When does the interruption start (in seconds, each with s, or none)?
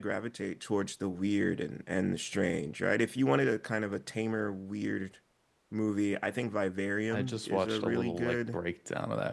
7.1 s